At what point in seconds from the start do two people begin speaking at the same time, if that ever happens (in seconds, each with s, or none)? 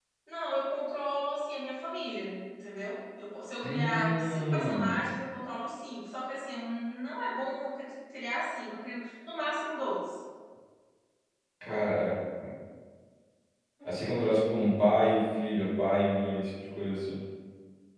3.6 s